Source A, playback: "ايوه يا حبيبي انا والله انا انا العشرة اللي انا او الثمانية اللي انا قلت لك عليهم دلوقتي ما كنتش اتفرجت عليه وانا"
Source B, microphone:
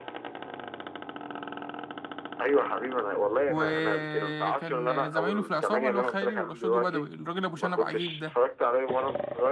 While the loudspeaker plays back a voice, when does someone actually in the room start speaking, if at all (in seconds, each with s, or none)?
3.5 s